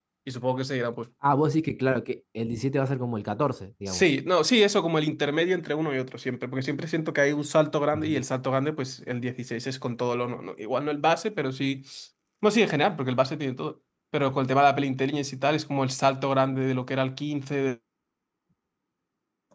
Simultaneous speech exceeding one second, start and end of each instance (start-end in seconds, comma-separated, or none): none